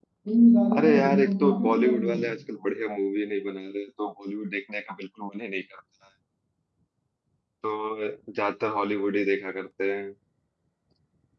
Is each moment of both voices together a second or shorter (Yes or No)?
No